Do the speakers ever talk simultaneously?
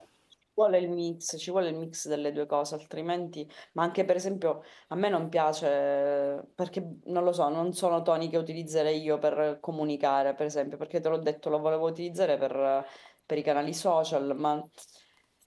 No

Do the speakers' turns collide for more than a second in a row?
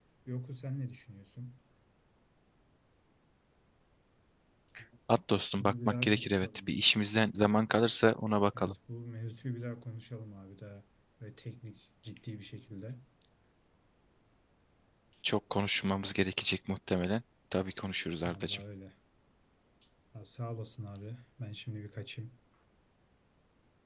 Yes, from 5.6 s

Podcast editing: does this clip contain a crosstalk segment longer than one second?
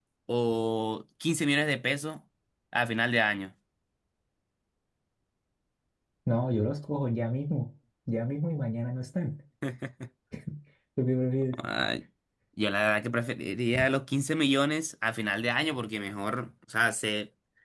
No

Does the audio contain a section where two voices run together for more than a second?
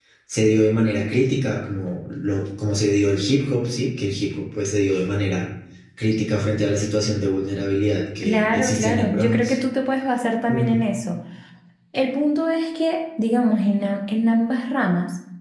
Yes, from 8.2 s

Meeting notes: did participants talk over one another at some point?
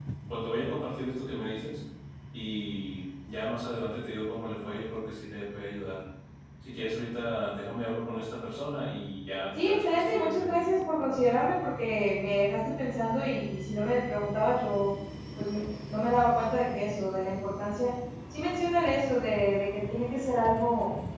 Yes, from 9.6 s

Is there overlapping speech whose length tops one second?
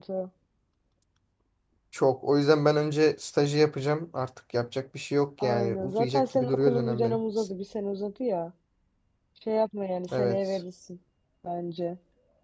Yes, from 5.4 s

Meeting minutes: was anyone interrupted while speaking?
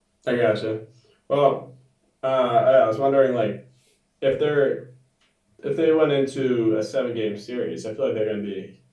No

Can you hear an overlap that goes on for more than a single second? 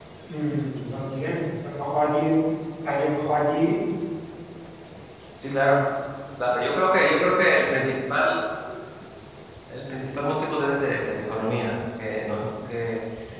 No

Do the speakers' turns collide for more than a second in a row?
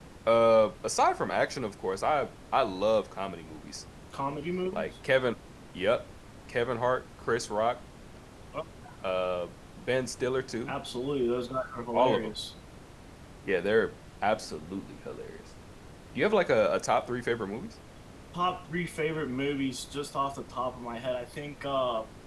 No

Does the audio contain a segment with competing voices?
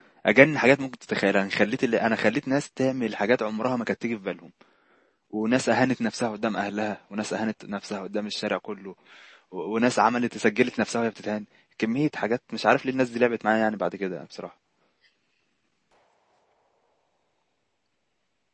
No

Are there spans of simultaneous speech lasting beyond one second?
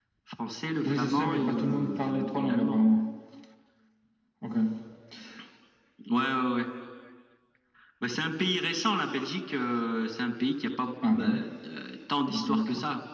Yes, from 0.8 s

